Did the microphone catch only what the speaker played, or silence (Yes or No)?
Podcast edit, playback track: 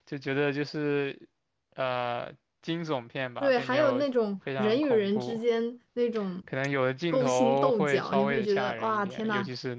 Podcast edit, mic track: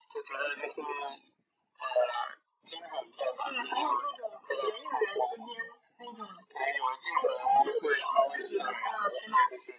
Yes